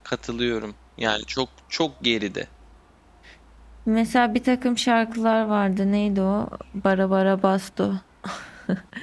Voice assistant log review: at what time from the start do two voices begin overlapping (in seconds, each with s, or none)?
none